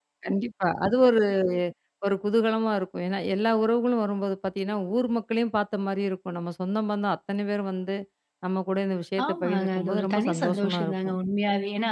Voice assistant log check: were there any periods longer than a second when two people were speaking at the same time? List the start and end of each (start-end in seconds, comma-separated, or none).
9.2-11.2